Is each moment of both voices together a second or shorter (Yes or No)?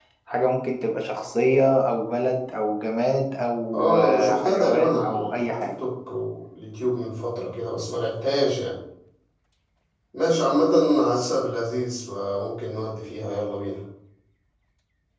No